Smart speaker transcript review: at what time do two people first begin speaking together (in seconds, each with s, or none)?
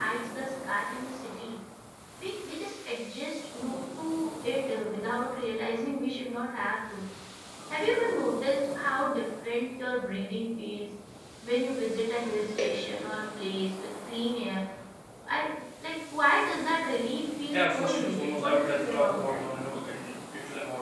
17.5 s